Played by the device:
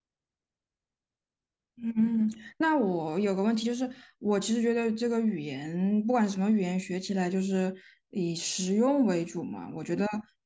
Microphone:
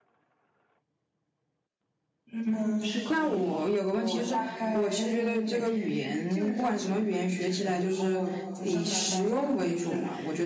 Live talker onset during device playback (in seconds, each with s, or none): 2.5 s